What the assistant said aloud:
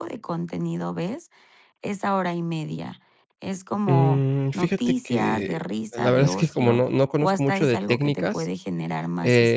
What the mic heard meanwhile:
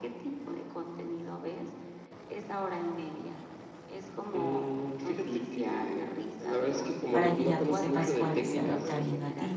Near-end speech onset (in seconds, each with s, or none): 7.1 s